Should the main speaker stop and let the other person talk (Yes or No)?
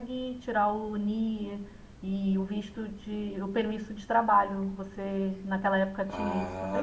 Yes